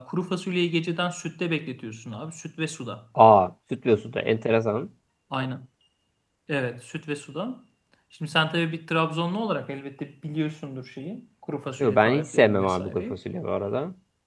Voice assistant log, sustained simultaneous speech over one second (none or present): present